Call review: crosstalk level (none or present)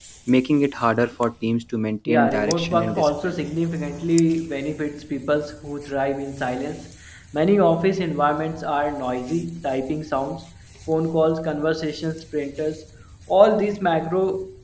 present